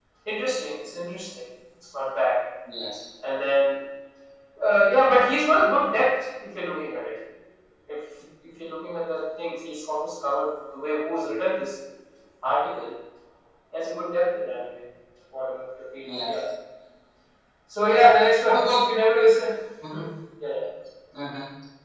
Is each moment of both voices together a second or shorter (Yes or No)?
Yes